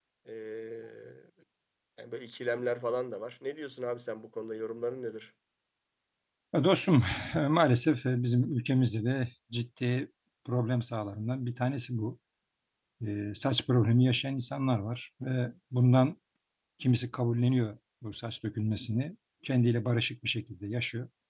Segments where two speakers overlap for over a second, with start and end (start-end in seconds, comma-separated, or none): none